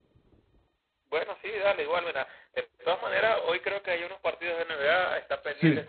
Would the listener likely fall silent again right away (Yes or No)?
Yes